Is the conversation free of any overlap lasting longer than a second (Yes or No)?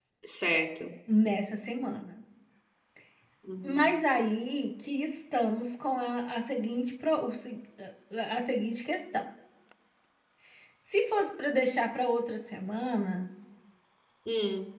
Yes